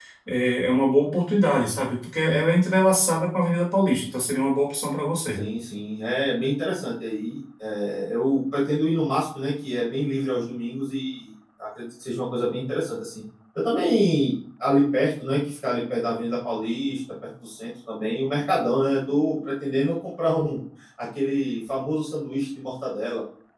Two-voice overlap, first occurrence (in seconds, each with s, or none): none